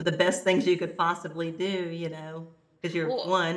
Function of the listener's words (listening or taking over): listening